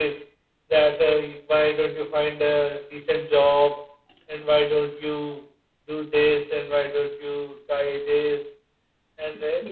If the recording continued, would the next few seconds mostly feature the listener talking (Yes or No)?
Yes